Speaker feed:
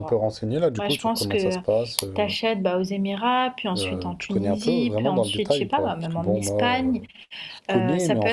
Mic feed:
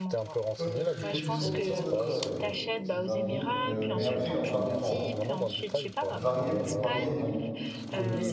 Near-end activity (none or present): present